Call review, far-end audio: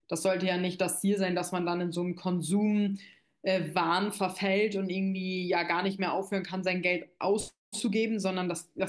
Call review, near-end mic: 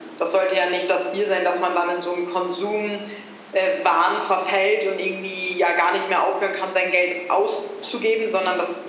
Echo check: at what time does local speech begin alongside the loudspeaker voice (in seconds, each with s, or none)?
none